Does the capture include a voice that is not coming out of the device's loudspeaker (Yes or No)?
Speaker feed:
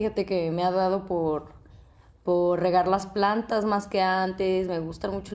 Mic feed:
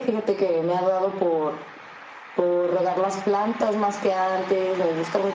No